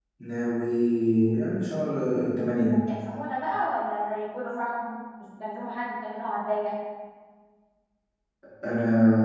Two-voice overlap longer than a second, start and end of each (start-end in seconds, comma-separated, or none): none